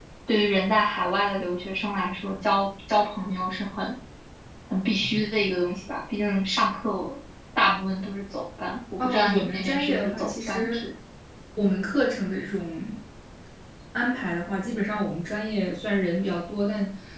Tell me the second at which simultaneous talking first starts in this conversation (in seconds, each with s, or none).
9.0 s